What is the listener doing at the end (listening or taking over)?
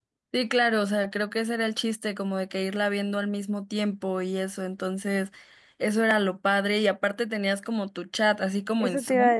taking over